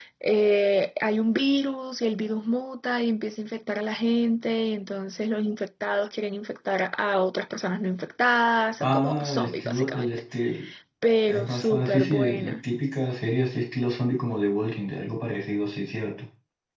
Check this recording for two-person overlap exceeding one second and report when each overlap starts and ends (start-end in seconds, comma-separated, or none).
8.8-10.1, 11.3-12.6